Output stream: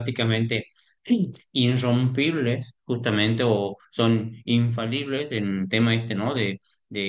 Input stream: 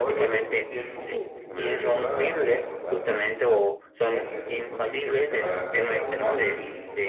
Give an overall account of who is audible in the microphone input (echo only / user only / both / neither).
both